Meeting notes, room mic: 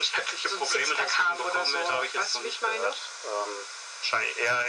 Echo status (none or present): present